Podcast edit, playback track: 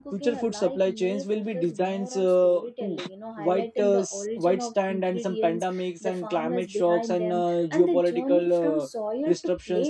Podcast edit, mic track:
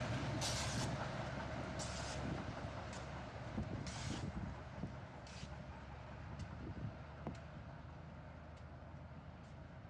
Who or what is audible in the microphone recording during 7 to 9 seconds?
neither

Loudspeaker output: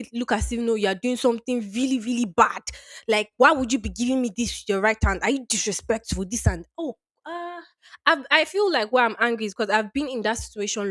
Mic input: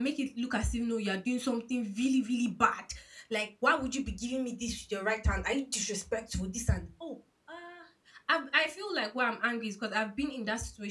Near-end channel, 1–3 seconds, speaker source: echo only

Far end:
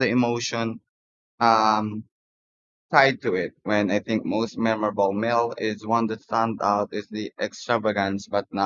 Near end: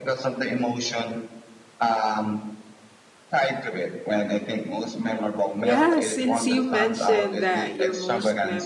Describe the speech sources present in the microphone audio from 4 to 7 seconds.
both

